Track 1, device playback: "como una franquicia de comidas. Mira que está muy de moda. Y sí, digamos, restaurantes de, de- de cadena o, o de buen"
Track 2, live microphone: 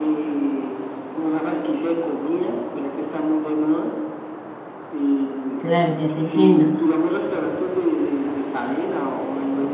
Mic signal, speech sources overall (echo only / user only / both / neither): both